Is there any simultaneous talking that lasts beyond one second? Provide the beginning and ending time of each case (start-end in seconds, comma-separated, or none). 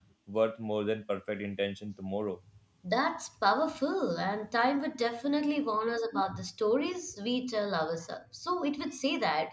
none